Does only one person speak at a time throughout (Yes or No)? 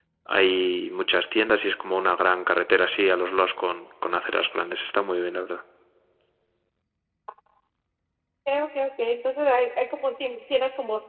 Yes